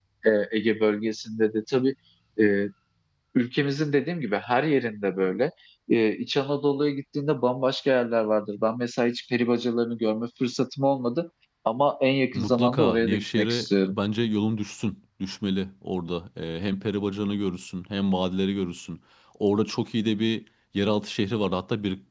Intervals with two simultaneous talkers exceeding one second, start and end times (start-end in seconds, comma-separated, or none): 12.3-14.0